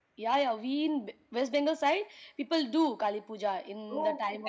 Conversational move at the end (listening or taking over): taking over